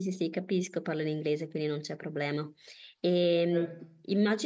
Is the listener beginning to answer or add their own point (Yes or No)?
No